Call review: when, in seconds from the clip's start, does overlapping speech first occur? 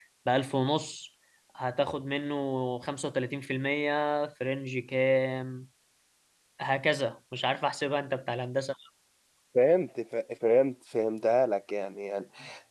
none

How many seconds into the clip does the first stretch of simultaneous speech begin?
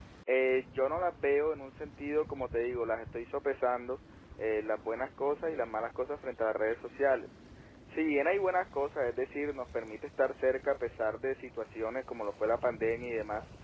none

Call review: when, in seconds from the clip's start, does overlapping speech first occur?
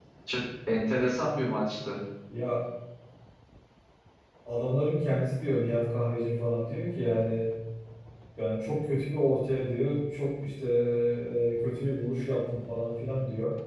none

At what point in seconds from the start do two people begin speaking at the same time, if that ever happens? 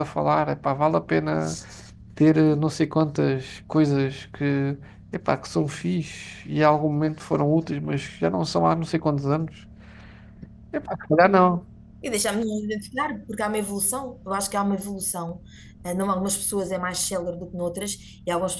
none

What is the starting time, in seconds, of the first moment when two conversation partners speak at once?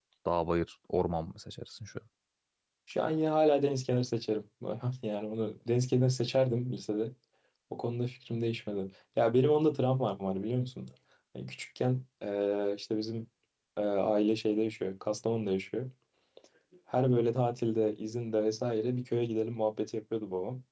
none

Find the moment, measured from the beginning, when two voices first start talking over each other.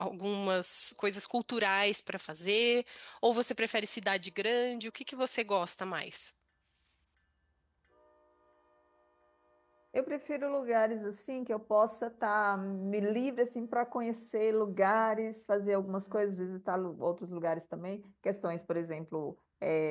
none

